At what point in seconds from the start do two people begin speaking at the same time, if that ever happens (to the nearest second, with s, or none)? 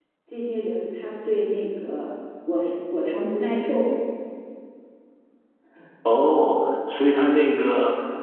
none